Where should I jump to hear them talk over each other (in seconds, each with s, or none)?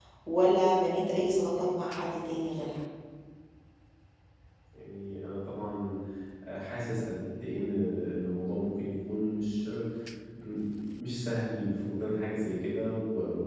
none